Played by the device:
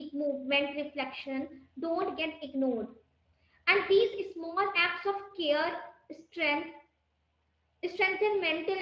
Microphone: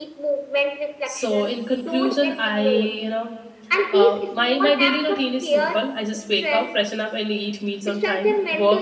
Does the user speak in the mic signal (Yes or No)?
Yes